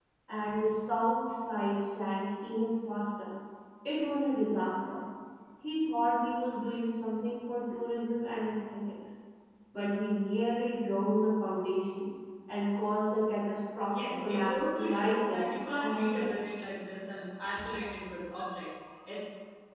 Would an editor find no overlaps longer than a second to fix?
No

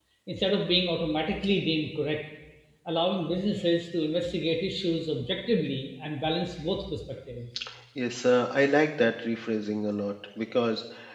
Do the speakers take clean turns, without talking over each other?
Yes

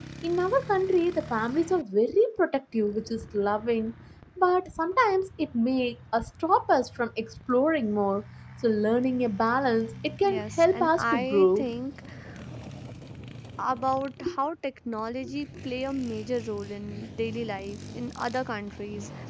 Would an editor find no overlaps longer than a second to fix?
No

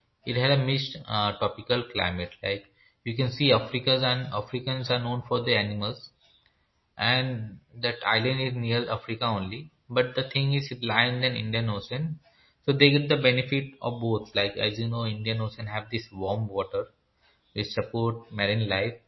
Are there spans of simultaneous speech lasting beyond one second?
No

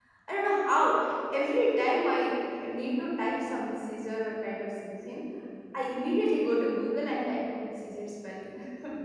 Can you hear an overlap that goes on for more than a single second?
No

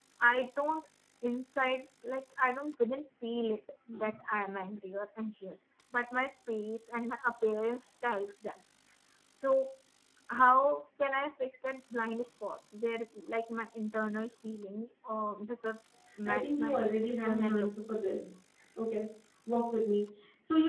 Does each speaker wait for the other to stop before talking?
No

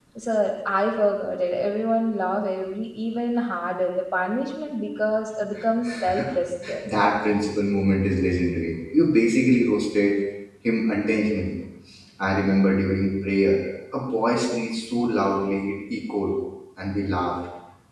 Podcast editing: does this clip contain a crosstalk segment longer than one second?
No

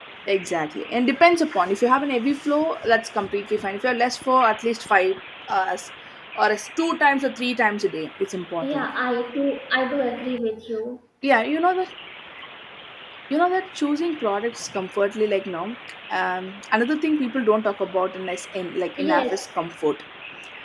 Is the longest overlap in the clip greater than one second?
No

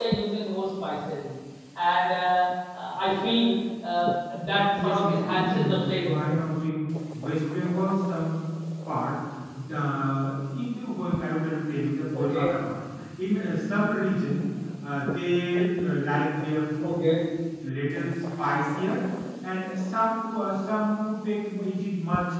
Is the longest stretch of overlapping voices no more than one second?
No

